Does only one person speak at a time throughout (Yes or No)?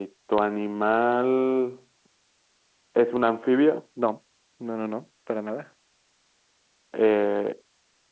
Yes